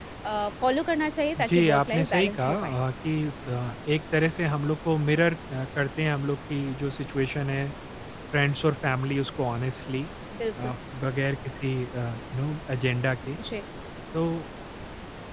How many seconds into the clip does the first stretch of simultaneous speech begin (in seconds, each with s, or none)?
1.4 s